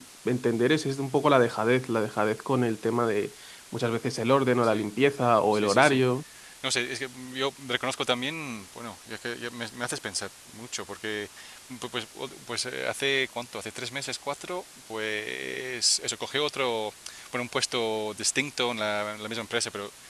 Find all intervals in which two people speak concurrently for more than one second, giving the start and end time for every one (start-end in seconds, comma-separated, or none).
none